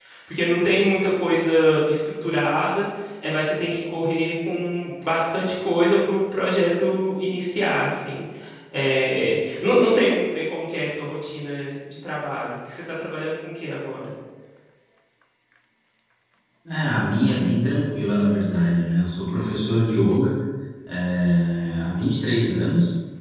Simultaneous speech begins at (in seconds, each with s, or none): none